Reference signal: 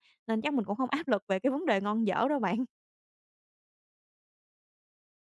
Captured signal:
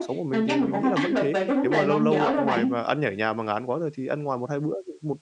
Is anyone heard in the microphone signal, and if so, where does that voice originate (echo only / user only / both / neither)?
both